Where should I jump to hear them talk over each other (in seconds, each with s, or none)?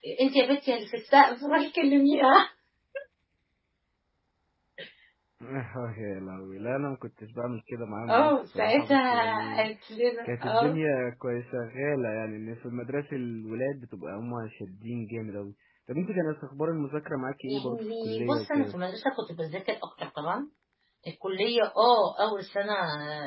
8.1 s